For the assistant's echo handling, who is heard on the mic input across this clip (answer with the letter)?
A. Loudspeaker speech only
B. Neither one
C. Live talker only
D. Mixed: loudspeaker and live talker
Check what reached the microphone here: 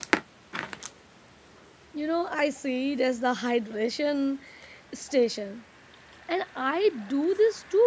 C